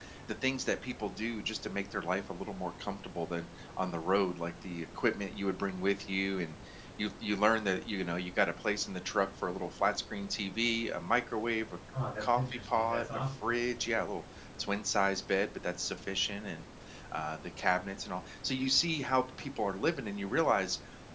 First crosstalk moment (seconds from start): 12.2 s

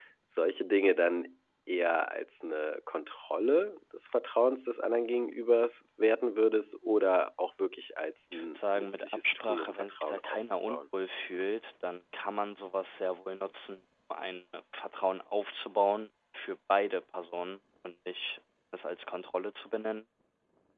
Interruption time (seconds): 8.3 s

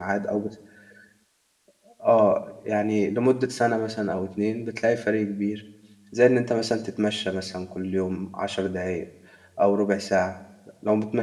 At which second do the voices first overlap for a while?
none

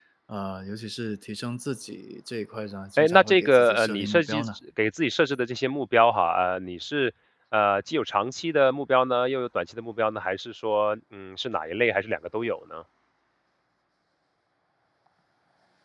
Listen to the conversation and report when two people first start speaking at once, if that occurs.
3.0 s

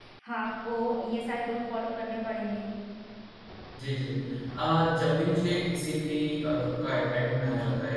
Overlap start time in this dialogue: none

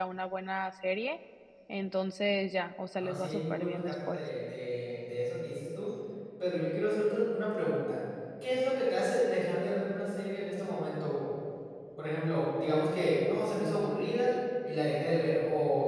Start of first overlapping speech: 3.0 s

